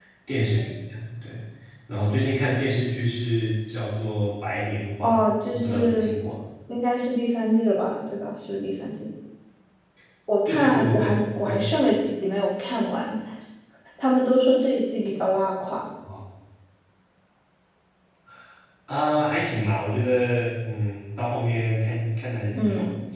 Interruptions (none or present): present